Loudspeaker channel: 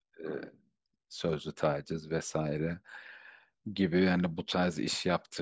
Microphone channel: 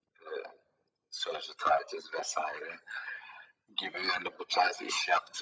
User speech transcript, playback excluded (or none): none